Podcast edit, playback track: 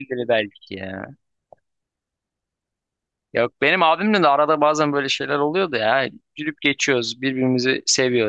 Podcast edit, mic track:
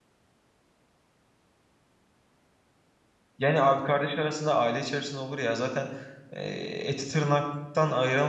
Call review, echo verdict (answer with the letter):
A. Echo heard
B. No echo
B